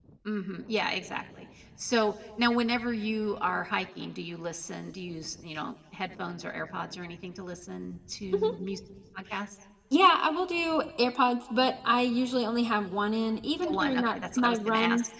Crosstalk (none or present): present